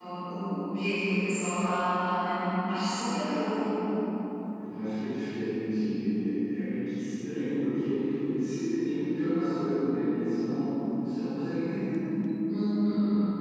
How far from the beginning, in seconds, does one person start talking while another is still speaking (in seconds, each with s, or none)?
none